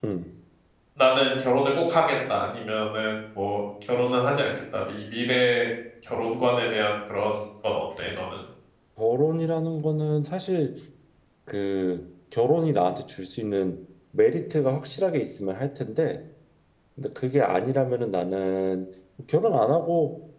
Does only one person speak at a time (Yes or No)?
Yes